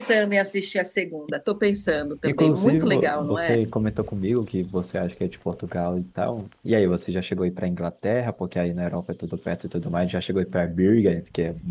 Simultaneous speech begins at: 2.2 s

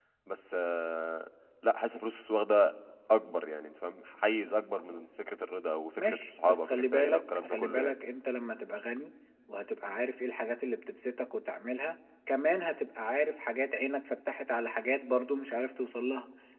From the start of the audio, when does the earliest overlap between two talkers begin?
6.0 s

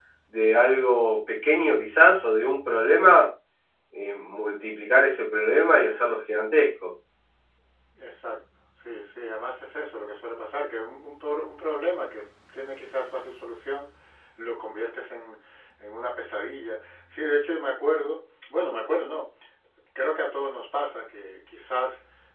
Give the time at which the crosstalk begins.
none

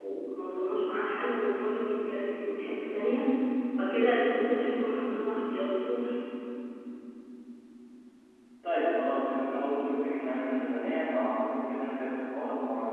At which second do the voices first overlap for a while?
none

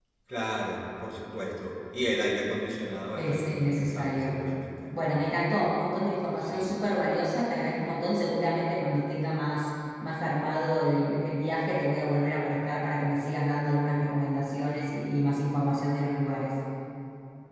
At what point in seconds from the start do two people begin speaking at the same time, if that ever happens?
3.1 s

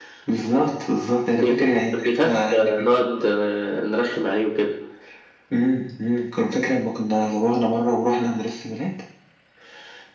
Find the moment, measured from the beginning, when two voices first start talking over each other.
1.3 s

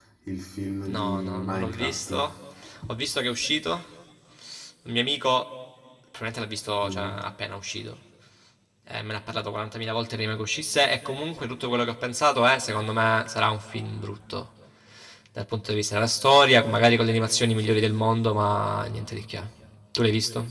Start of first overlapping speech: 0.9 s

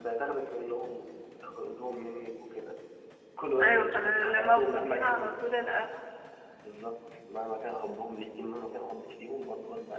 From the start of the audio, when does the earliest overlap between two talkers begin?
3.6 s

